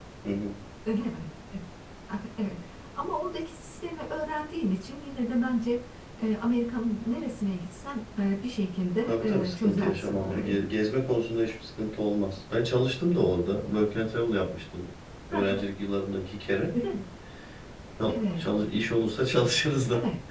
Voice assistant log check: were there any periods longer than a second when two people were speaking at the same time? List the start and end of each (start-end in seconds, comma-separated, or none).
9.1-10.6